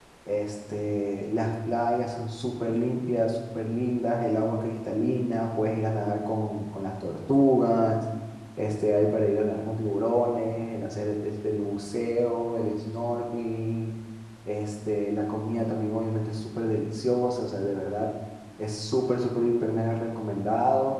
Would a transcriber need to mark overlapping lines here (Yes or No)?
No